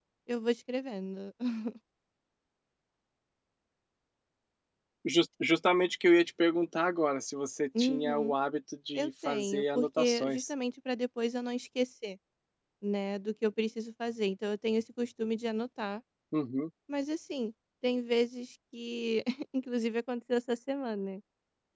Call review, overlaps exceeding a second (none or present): present